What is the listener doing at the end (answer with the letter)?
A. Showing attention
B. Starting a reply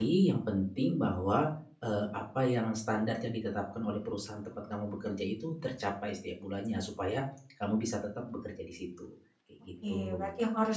B